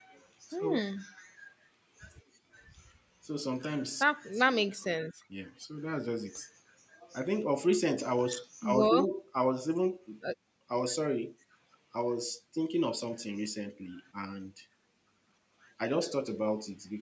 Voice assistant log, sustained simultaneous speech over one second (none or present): none